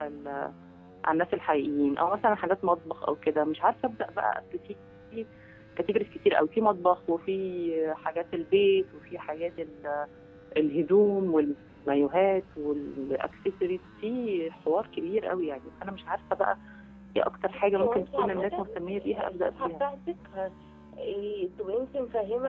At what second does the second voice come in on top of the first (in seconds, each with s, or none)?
17.8 s